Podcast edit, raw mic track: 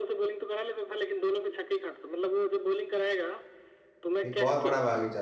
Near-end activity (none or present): present